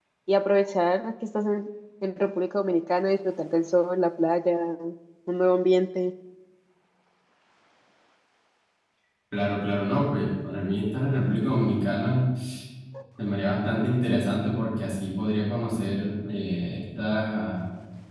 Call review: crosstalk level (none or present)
none